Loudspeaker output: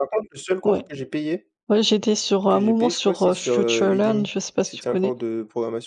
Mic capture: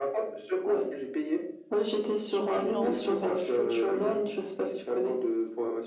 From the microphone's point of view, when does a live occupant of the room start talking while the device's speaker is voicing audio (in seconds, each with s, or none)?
2.3 s